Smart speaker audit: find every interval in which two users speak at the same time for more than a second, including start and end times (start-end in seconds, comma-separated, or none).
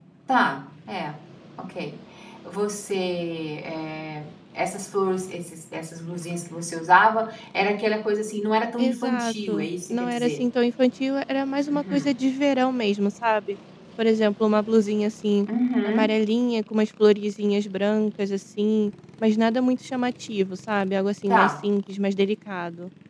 8.8-10.4